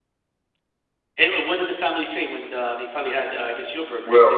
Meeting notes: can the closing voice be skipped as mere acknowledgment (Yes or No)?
No